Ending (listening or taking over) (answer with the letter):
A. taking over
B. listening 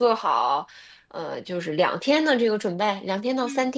A